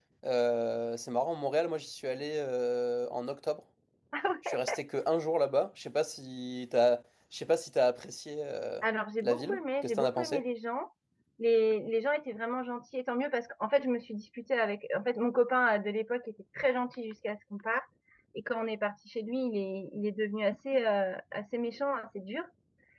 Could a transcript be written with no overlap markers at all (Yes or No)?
No